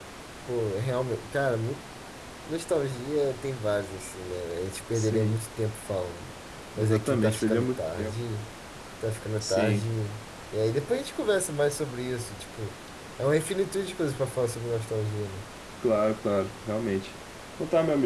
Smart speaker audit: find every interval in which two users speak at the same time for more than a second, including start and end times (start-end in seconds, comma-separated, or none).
6.8-8.2